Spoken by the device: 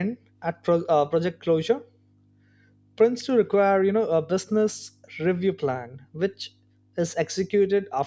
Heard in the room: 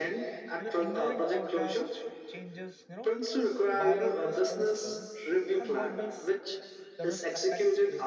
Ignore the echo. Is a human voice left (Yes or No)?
Yes